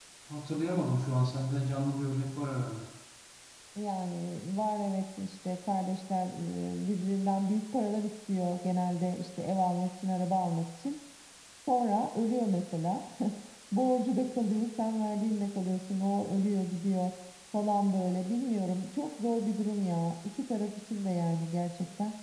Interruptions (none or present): none